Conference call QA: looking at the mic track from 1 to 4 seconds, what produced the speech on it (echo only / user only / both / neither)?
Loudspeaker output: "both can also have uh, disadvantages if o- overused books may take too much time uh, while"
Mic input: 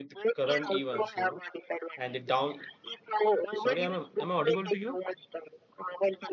both